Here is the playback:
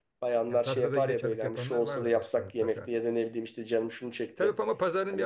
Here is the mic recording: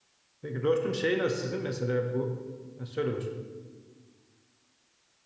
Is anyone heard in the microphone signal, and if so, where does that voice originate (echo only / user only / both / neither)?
user only